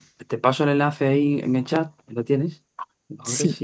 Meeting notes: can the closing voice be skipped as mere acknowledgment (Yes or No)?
Yes